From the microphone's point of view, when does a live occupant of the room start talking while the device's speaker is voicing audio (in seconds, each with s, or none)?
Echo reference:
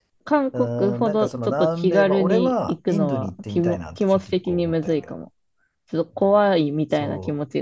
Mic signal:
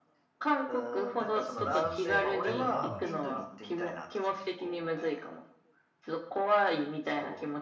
1.4 s